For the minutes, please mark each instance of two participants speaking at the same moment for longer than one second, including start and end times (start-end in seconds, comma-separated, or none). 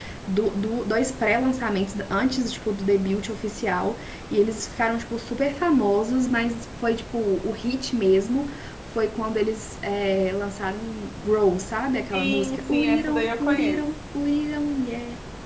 12.1-13.9